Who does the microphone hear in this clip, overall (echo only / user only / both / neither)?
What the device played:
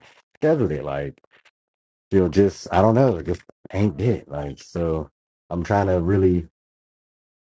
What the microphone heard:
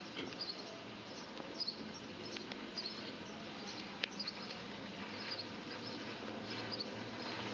neither